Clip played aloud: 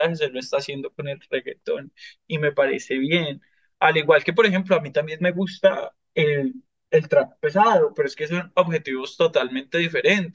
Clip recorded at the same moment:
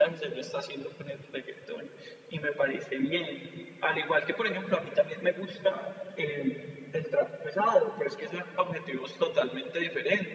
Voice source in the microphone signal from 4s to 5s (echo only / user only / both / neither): echo only